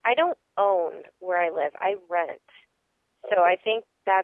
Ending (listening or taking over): listening